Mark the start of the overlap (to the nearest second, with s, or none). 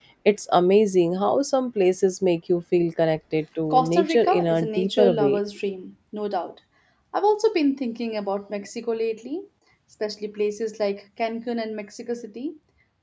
4 s